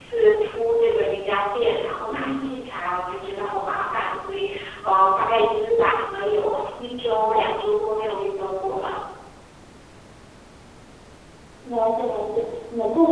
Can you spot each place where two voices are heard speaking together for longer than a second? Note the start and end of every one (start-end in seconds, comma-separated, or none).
none